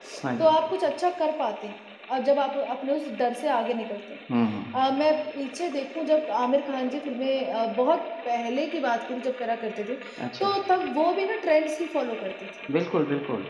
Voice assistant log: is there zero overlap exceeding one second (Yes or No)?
Yes